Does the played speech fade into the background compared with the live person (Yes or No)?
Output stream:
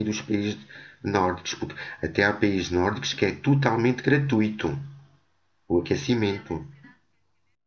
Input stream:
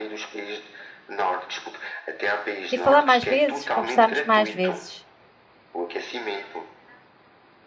Yes